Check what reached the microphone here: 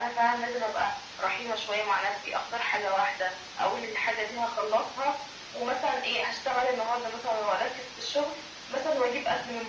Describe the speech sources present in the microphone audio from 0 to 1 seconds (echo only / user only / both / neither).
echo only